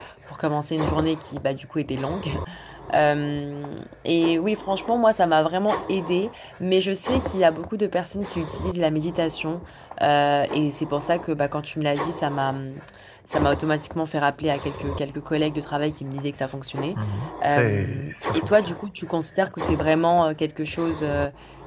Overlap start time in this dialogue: 17.5 s

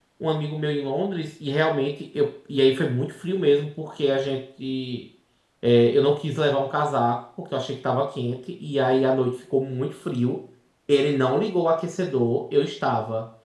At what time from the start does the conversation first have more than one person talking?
none

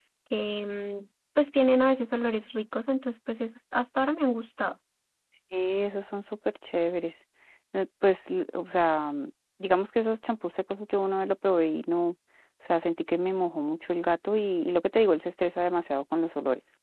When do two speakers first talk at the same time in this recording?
none

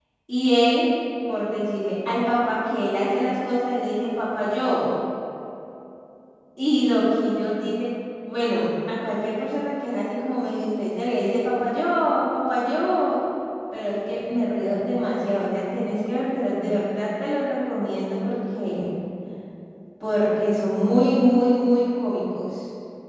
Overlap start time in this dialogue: none

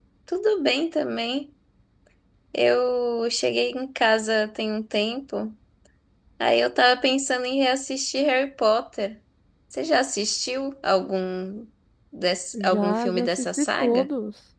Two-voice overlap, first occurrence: 12.5 s

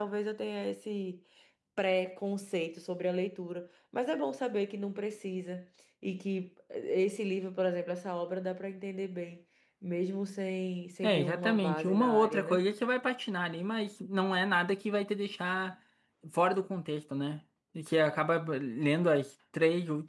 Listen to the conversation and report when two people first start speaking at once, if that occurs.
11.0 s

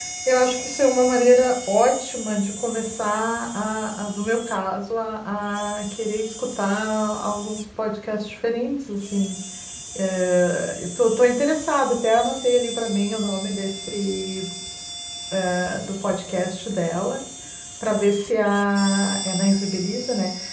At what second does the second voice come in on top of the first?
none

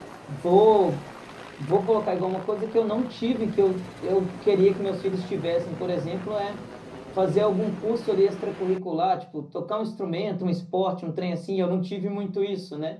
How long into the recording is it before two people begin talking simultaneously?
none

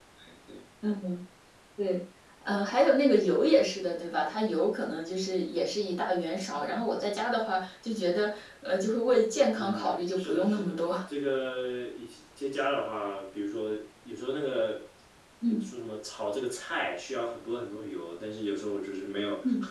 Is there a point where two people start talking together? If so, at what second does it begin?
9.5 s

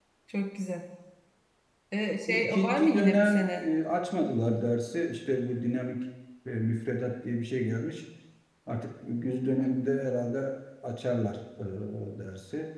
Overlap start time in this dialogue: 2.3 s

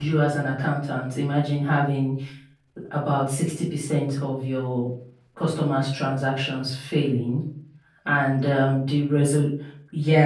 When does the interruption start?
none

